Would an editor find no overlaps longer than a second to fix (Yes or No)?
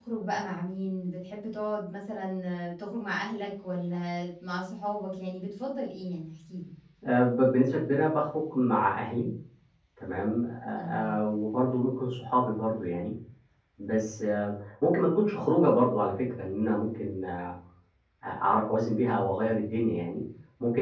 Yes